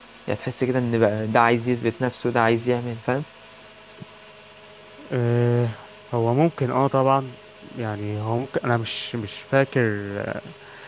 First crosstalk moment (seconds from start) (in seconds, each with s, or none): none